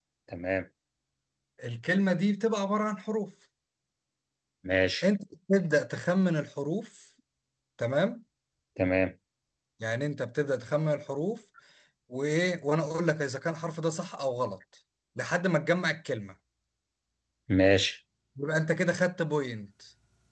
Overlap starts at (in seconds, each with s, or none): none